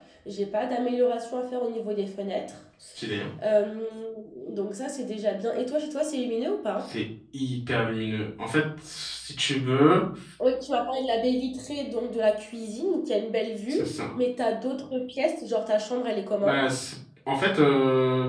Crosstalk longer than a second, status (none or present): none